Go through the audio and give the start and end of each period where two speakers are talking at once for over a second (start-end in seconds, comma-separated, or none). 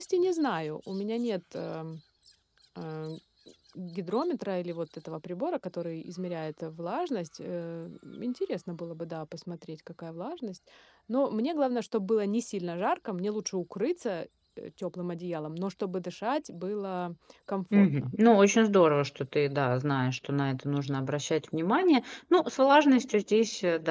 none